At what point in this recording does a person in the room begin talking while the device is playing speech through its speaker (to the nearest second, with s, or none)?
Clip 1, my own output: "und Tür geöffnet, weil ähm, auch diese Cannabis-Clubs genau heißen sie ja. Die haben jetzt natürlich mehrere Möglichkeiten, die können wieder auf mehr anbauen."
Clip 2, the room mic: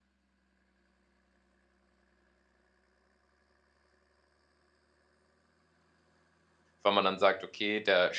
7 s